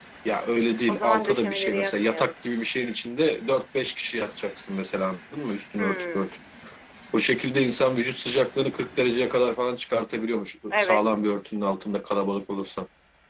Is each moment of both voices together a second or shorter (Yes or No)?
No